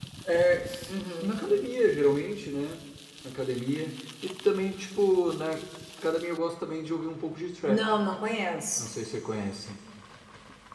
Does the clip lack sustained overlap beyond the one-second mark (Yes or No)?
Yes